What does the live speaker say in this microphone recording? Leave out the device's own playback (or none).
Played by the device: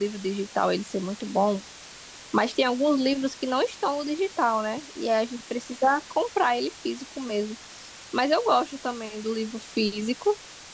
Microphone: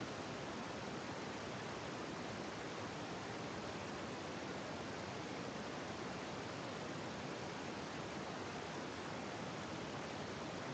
none